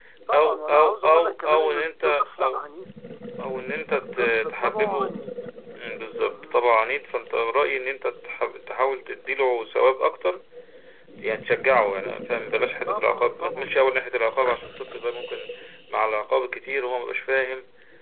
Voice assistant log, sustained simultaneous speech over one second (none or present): present